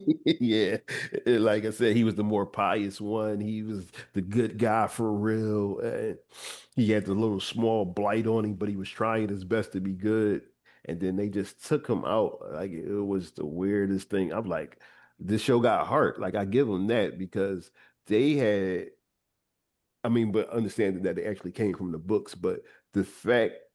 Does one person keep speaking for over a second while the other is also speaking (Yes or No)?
No